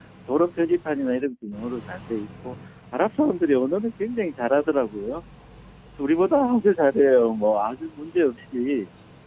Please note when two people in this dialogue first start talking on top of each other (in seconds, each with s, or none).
none